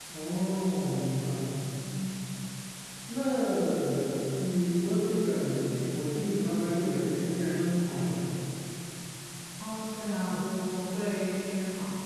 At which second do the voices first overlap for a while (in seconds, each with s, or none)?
none